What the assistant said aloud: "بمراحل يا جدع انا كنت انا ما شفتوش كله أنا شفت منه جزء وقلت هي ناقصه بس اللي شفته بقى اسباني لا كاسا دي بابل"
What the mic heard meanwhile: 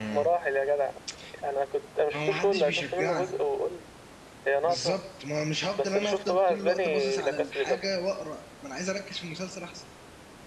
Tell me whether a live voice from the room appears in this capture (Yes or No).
Yes